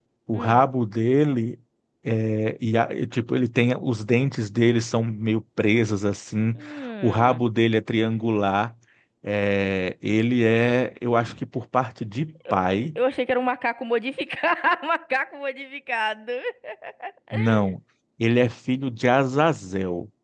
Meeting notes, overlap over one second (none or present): none